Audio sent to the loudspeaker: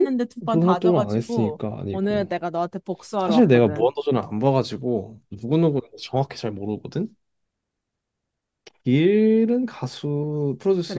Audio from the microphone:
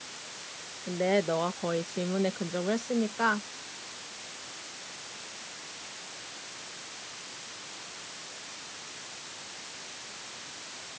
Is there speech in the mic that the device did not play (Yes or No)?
Yes